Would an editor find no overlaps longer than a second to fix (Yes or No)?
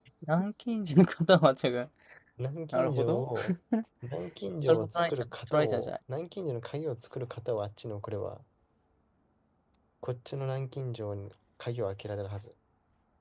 No